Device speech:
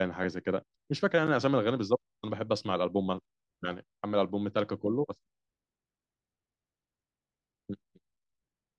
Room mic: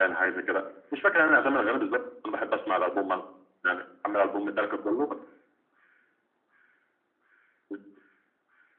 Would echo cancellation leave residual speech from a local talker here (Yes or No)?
No